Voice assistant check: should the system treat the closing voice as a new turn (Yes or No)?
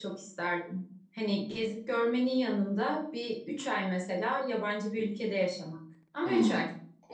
Yes